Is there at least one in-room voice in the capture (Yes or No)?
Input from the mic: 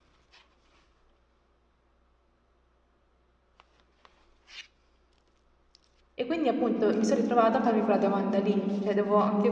Yes